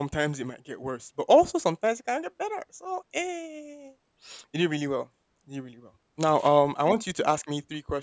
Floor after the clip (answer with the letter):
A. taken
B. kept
B